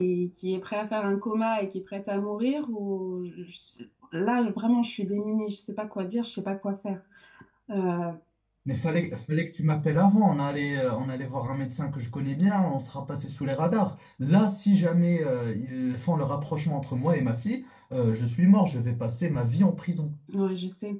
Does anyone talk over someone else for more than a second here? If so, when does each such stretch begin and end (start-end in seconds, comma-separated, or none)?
none